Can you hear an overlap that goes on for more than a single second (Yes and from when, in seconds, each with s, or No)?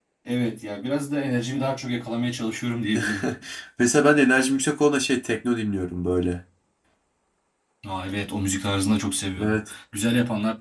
No